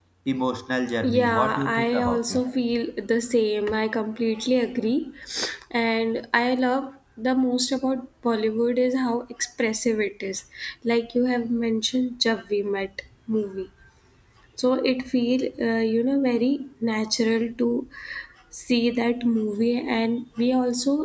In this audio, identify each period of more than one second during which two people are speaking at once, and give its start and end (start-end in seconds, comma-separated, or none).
1.1-2.4